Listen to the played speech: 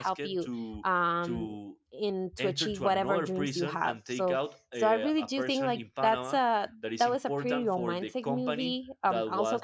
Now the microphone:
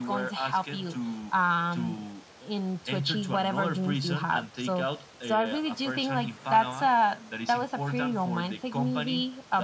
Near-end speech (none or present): none